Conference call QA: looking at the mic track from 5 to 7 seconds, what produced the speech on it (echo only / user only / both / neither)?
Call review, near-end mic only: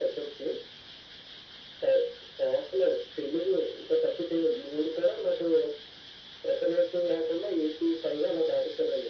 echo only